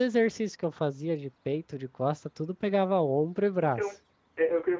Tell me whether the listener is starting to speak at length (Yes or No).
Yes